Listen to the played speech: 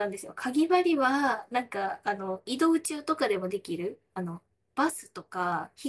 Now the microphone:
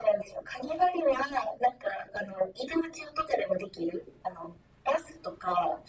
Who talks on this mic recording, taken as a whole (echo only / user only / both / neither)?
echo only